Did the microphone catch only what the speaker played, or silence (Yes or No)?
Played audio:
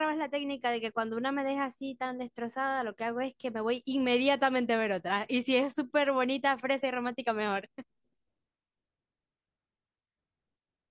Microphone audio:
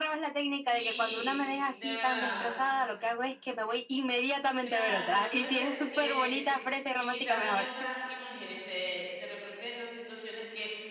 No